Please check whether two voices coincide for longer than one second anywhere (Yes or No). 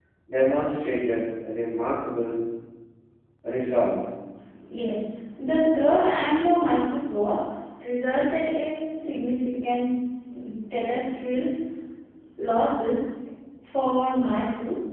No